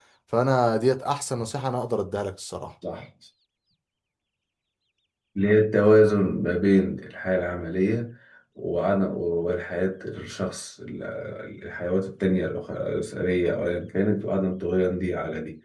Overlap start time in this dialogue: none

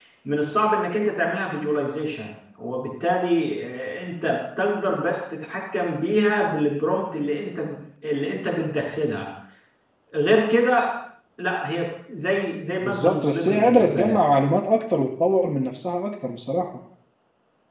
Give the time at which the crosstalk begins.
12.8 s

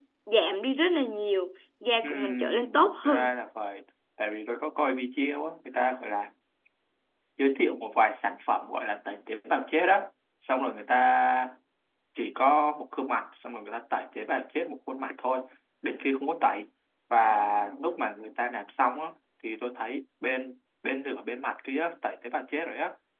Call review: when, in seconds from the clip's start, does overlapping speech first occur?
2.0 s

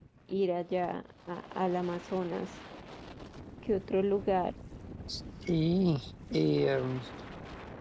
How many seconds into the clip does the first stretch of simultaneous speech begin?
none

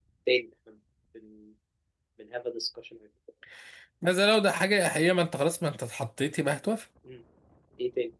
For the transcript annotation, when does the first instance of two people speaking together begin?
none

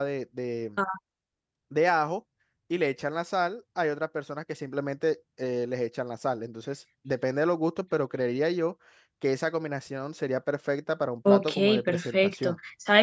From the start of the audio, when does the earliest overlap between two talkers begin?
11.2 s

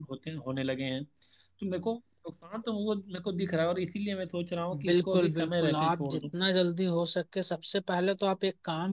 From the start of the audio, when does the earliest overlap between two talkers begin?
4.7 s

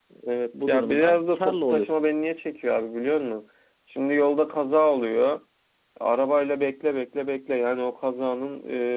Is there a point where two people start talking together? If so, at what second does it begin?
0.7 s

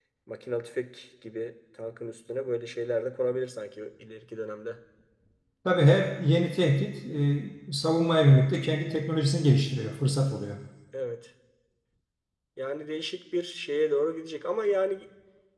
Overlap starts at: none

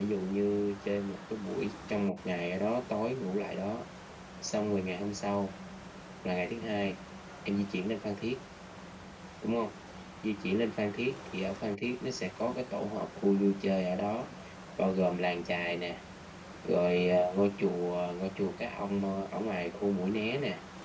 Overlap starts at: none

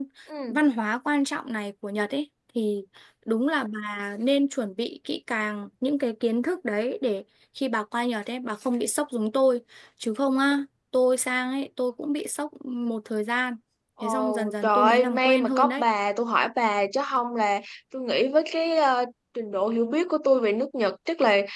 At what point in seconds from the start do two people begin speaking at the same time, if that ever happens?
14.0 s

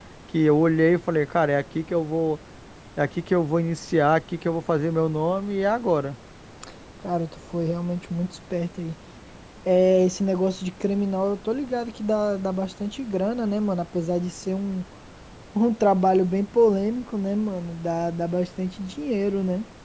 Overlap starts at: none

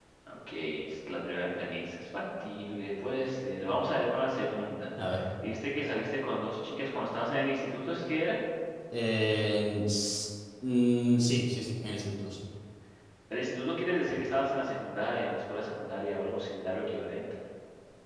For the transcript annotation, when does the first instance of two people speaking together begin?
none

